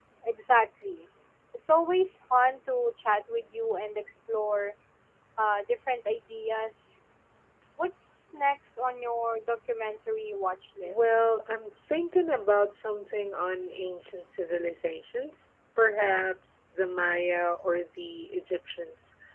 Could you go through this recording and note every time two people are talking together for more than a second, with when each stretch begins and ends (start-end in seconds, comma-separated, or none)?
none